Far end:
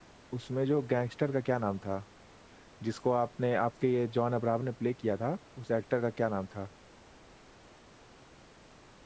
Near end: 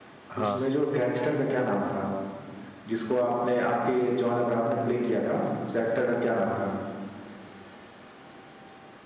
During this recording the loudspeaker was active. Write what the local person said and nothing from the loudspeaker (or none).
हाँ